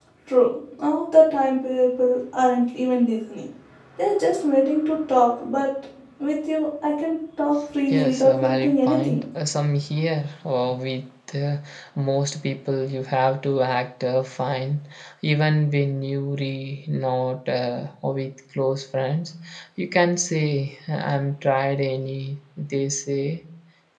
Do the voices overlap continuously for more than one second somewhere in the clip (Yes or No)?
Yes